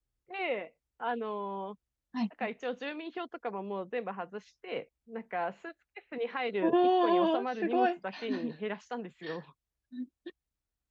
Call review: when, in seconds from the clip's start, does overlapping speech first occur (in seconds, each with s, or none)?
6.6 s